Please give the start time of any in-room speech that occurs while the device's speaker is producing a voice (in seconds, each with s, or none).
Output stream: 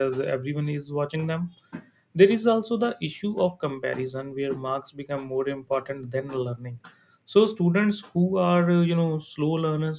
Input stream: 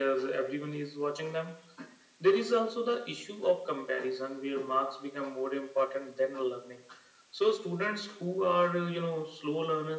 none